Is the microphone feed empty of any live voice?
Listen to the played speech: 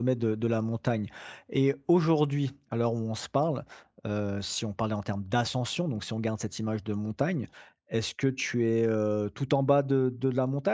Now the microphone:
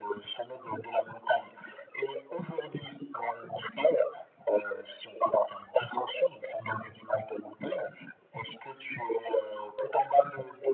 Yes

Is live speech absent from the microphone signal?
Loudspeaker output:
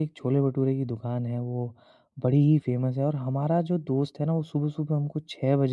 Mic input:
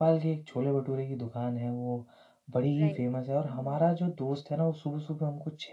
No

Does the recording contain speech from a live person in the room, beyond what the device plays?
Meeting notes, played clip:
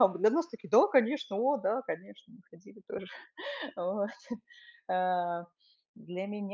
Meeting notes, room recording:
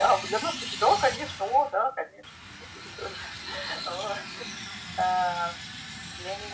No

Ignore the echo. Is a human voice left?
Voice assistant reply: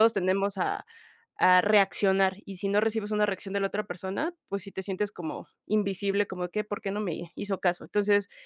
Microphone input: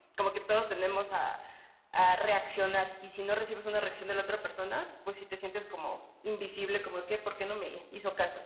No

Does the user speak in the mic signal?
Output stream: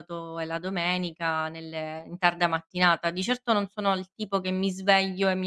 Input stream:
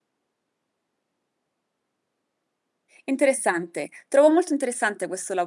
Yes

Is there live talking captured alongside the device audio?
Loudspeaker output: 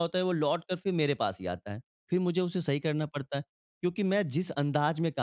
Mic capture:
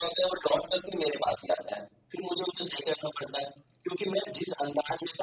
No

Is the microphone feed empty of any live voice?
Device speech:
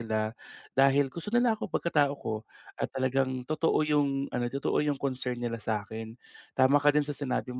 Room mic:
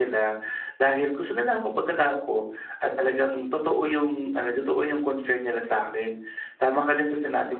Yes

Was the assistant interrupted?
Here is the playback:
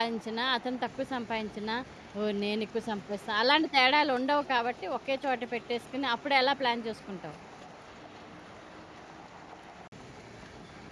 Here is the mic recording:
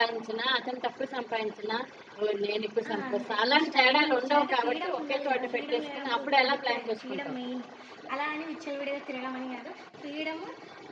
Yes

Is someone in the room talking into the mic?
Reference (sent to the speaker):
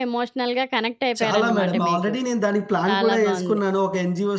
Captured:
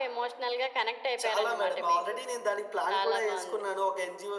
No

